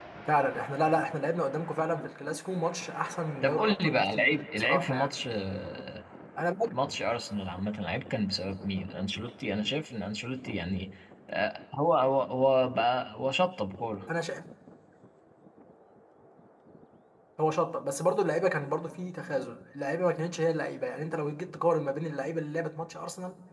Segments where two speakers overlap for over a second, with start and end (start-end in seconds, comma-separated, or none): 3.4-5.1